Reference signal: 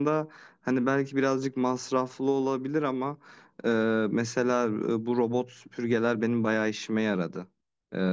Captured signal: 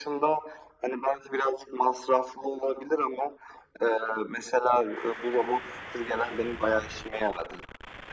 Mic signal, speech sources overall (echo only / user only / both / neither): echo only